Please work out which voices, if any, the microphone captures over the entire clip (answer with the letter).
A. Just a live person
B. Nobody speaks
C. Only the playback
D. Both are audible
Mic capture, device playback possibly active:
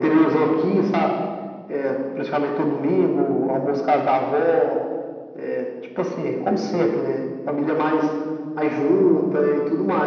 C